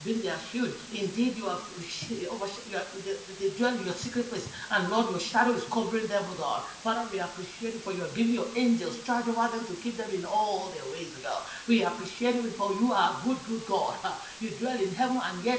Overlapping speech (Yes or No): No